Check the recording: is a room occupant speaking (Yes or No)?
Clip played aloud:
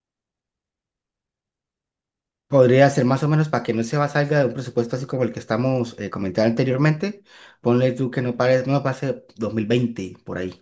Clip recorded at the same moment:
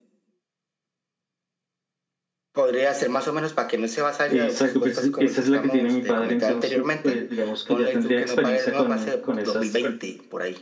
Yes